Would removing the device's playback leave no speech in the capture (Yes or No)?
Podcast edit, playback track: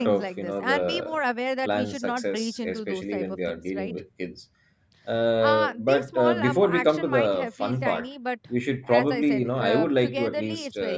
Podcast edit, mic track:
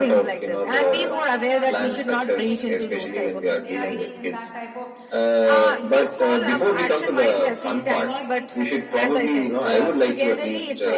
No